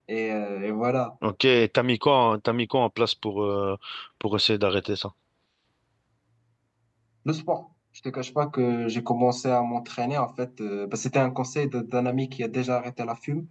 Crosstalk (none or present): none